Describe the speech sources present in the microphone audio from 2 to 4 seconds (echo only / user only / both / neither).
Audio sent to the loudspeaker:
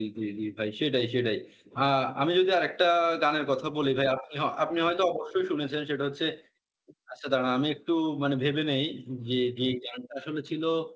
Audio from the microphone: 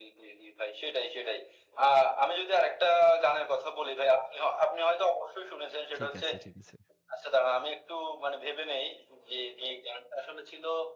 echo only